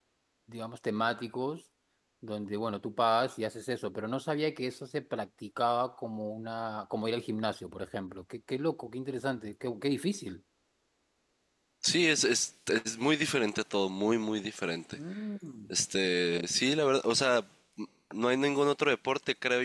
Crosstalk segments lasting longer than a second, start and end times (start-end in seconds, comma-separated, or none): none